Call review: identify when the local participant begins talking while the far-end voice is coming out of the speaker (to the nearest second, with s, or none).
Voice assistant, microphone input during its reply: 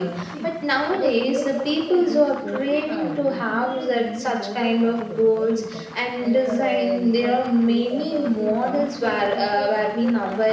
none